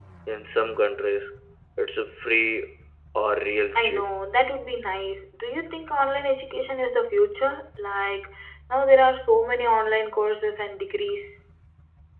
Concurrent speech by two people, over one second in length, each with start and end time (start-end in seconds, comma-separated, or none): none